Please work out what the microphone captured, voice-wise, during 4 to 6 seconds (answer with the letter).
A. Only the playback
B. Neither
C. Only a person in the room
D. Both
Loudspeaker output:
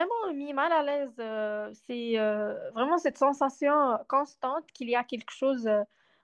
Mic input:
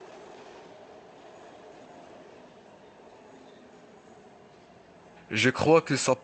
C